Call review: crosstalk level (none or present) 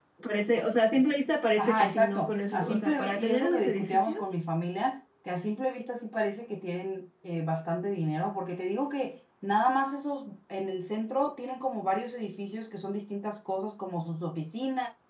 present